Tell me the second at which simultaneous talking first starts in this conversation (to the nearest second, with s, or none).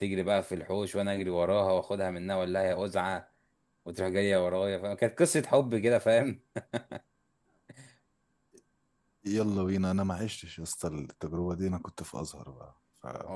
none